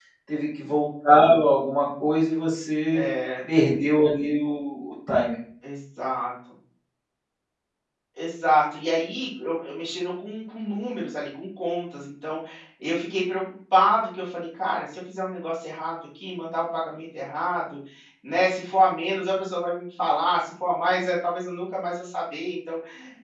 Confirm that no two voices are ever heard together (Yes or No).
Yes